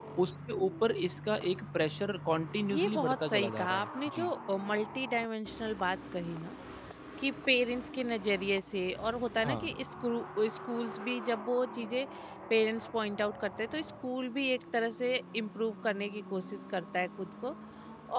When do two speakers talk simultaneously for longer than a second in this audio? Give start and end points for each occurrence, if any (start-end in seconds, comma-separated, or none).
2.7-4.3